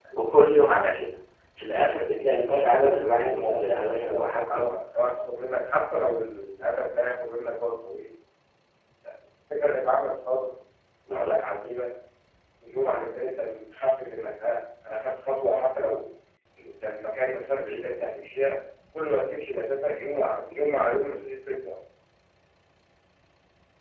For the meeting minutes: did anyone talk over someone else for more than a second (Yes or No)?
Yes